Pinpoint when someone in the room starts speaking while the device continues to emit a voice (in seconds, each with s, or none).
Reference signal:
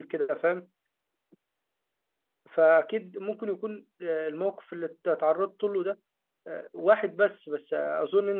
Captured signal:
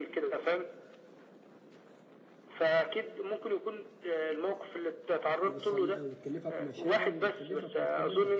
5.4 s